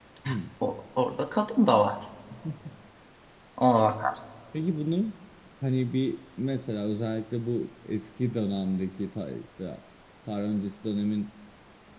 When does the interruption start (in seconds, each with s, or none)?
none